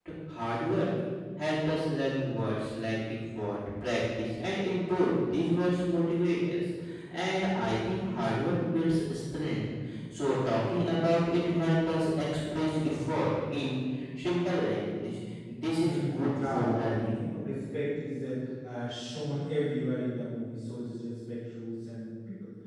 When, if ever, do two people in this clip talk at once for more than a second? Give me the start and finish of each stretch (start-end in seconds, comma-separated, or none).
15.8-17.2